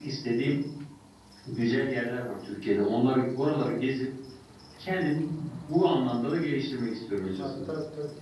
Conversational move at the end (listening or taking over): taking over